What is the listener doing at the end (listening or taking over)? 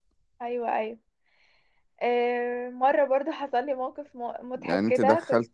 taking over